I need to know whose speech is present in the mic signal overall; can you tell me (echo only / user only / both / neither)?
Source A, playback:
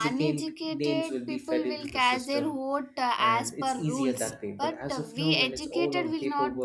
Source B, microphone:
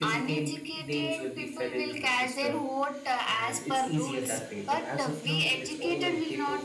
echo only